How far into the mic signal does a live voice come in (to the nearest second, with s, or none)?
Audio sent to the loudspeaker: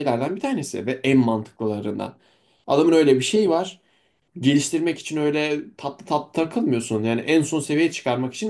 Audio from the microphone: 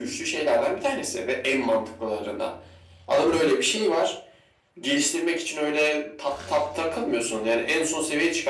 none